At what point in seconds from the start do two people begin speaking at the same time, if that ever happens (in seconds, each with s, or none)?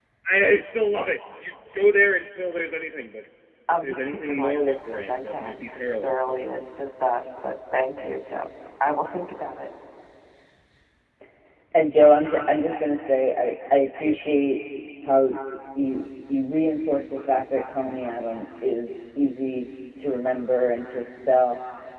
3.8 s